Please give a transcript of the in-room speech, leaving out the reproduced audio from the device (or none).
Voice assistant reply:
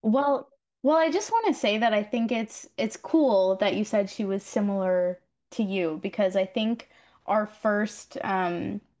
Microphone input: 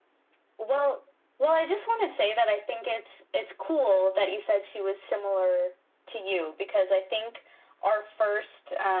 none